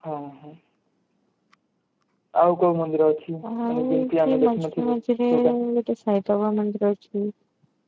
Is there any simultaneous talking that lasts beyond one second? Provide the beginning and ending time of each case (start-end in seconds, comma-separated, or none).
3.6-5.0